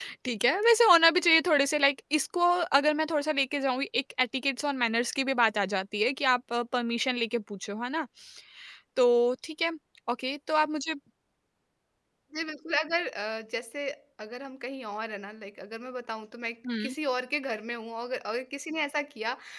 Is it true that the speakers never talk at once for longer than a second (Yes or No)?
Yes